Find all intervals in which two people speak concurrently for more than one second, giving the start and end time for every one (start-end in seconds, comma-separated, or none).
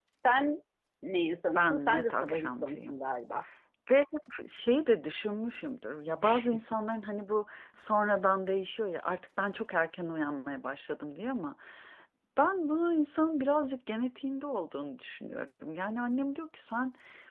1.6-2.9